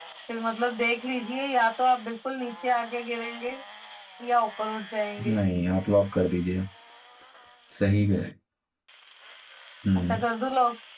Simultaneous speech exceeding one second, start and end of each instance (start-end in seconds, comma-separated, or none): none